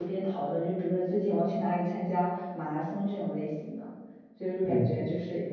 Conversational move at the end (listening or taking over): listening